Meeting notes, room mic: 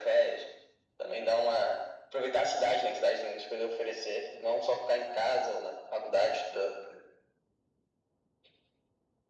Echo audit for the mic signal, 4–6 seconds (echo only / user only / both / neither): echo only